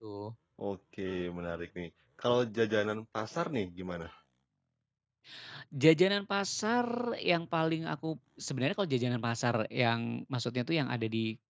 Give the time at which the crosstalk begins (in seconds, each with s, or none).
none